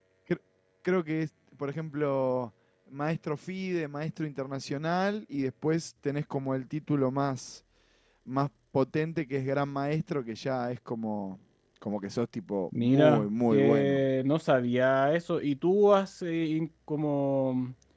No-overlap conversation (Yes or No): No